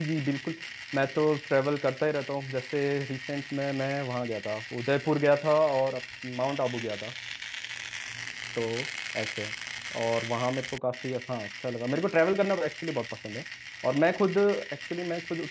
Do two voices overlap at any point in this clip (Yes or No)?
No